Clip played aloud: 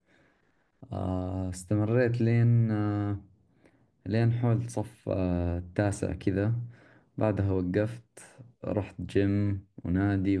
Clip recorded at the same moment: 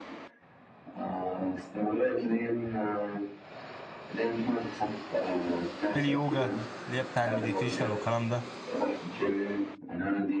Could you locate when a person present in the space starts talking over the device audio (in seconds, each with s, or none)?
5.9 s